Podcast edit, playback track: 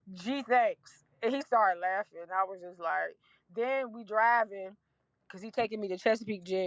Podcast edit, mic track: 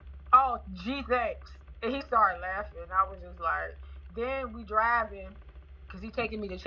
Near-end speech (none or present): none